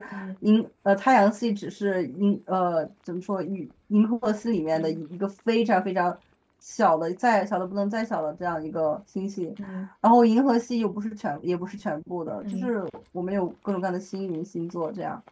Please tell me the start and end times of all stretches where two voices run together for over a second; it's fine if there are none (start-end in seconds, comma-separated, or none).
none